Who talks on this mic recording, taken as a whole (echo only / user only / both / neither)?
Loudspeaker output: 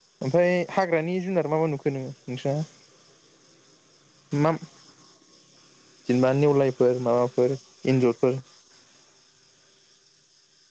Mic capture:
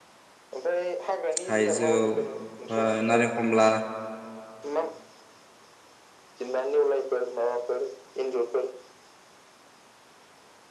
both